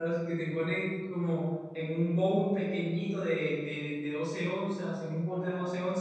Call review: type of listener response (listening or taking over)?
listening